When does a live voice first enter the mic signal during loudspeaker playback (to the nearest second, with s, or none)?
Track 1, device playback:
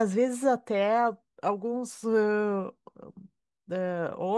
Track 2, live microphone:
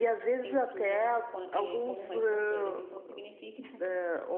0 s